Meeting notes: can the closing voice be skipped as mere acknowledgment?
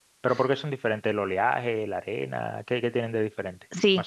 No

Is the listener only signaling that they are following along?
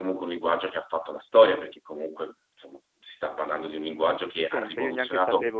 No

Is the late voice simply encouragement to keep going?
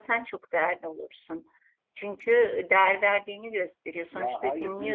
No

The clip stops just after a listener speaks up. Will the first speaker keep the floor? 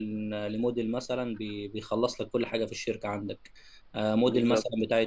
Yes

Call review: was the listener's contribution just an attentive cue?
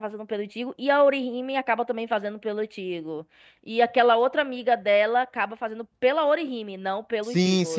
No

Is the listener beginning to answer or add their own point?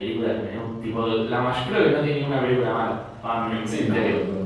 Yes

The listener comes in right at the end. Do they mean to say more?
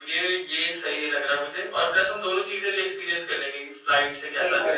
Yes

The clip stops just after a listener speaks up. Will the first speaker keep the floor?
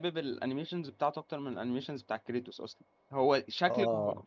Yes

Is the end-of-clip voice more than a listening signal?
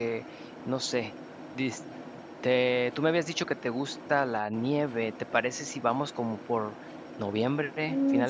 Yes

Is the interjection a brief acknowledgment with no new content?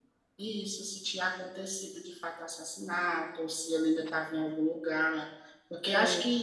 Yes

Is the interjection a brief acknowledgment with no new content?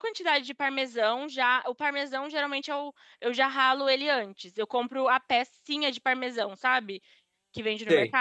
Yes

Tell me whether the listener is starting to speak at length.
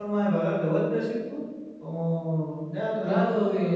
Yes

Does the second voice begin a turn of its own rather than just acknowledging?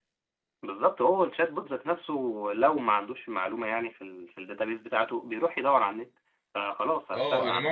Yes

